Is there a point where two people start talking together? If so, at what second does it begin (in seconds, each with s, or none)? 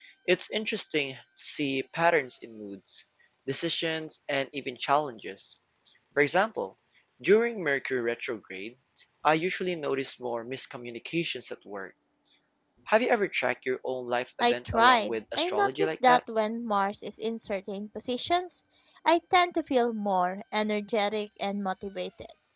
14.4 s